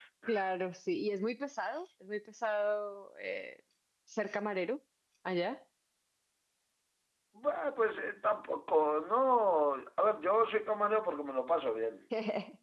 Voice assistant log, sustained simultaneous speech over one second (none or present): none